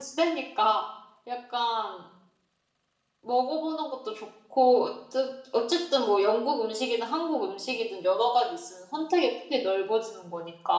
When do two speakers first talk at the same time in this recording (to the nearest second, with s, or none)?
none